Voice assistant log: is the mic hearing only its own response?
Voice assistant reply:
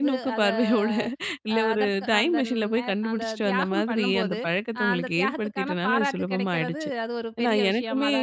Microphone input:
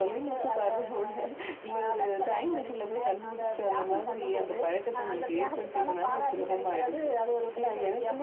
Yes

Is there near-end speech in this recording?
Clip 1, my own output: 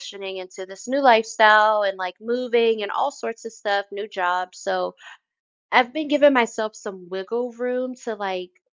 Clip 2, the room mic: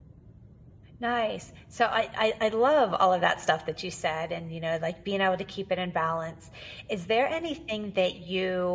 Yes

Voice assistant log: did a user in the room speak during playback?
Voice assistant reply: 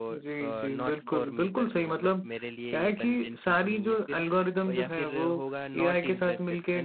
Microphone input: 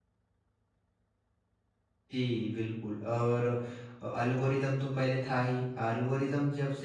Yes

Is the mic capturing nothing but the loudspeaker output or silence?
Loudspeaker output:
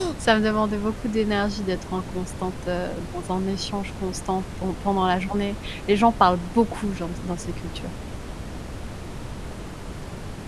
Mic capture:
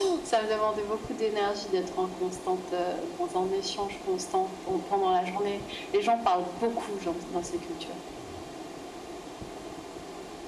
Yes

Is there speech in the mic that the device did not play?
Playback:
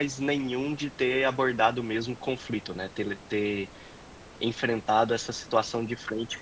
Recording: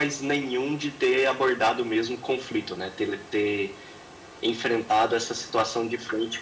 No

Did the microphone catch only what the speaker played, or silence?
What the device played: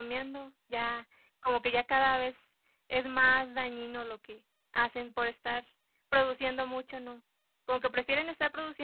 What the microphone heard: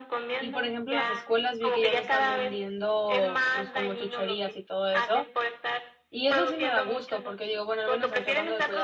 No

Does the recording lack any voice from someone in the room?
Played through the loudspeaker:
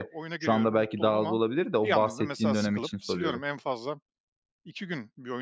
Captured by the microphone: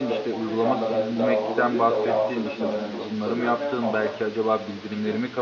No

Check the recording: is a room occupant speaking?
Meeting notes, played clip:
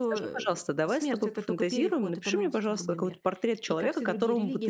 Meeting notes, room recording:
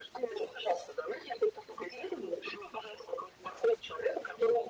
No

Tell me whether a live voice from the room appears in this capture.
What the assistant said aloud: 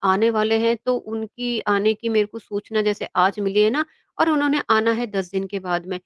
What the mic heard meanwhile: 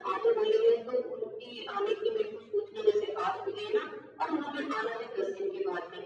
No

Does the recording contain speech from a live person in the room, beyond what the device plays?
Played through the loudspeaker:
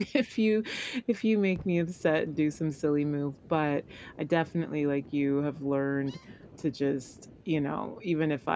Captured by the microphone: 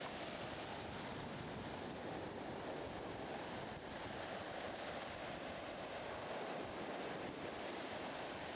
No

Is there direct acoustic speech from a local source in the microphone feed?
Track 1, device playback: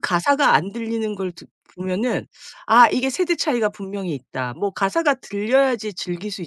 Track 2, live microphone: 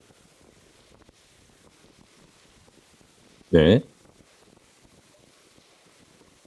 Yes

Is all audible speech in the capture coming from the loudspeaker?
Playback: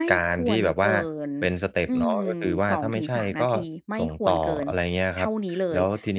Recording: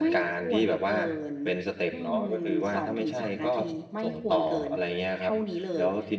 Yes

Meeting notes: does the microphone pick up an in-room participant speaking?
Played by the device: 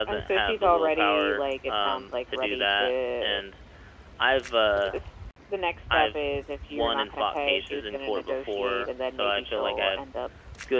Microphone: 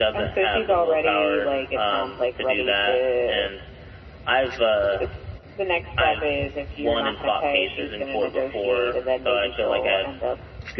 No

